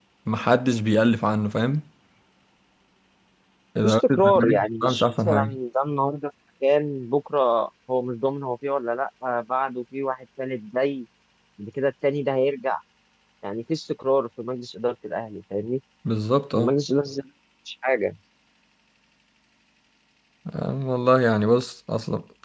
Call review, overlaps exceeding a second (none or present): present